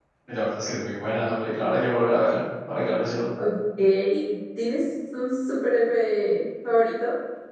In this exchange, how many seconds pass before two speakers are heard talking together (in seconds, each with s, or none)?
none